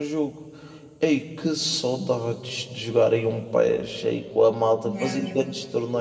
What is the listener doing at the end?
listening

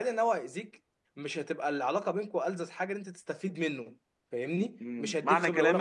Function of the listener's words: taking over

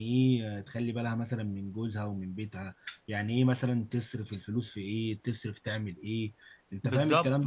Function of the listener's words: taking over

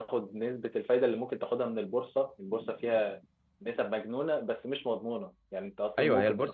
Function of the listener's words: taking over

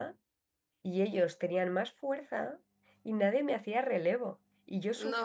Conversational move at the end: listening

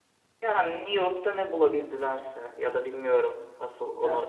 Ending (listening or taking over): listening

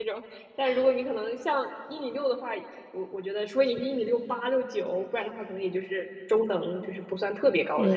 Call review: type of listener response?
taking over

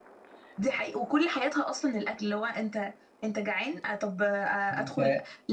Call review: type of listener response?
listening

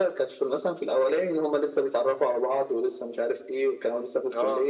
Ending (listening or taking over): listening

